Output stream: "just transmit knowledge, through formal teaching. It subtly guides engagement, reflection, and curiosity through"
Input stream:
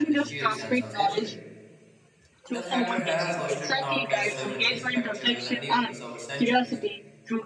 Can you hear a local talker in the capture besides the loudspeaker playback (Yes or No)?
Yes